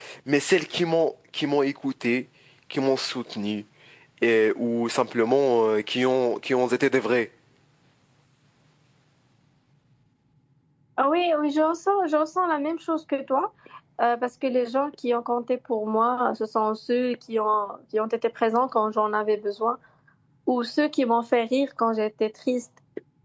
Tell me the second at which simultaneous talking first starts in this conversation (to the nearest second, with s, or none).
none